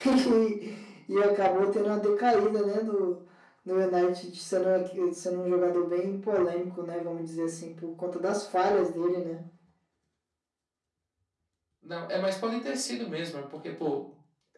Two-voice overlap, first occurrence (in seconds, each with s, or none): none